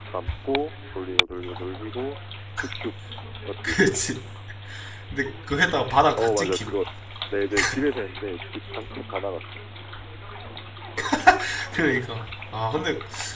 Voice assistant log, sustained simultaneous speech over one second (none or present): none